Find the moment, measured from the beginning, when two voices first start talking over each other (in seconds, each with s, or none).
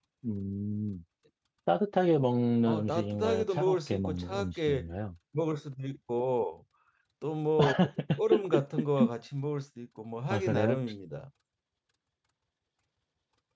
2.7 s